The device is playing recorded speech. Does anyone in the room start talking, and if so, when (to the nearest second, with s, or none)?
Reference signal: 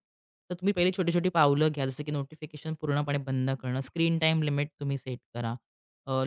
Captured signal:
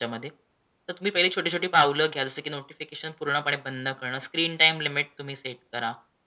none